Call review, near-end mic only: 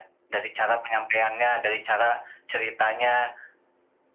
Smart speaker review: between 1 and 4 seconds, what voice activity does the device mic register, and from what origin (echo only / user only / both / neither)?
echo only